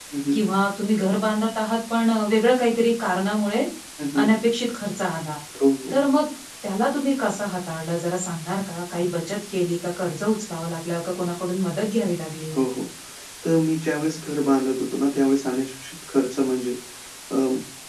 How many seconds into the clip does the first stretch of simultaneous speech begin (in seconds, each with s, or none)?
none